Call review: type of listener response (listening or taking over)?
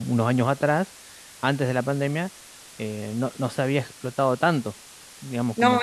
taking over